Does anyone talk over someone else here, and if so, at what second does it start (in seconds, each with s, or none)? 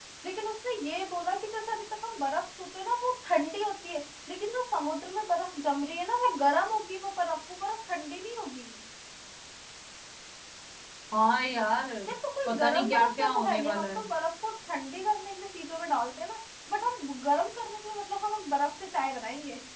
12.4 s